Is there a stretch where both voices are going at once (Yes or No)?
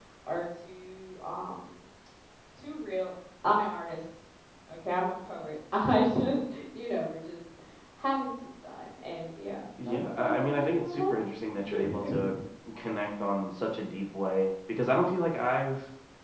Yes